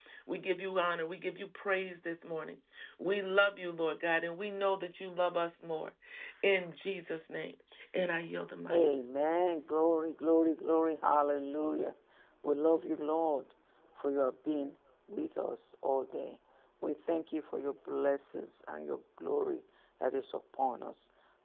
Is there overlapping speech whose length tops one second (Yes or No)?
No